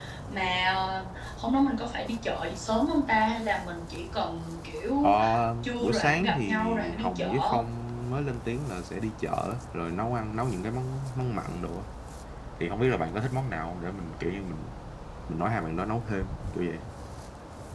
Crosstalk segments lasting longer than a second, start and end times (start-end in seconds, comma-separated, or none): 5.8-7.5